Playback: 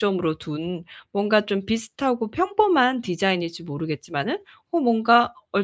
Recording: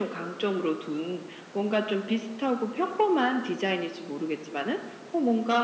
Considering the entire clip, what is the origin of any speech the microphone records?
echo only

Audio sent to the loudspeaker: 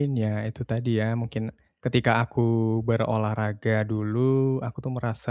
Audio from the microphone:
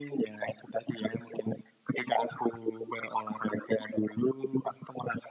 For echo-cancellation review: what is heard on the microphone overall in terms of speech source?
echo only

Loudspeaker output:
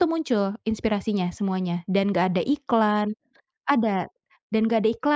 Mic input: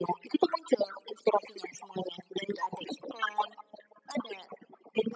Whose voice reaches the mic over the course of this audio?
echo only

